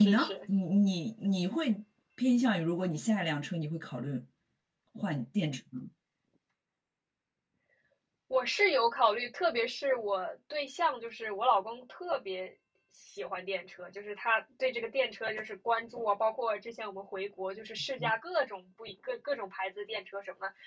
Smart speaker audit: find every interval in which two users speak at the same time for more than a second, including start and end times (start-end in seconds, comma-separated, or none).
none